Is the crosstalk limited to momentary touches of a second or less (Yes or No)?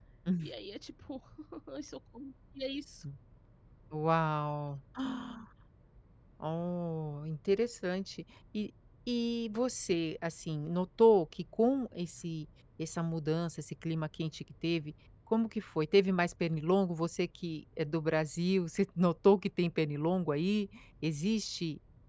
Yes